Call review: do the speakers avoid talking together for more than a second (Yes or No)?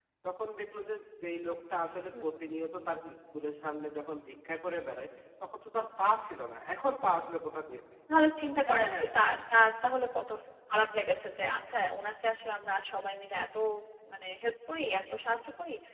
Yes